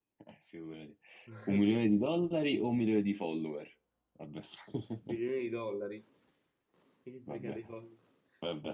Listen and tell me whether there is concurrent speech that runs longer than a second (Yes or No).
No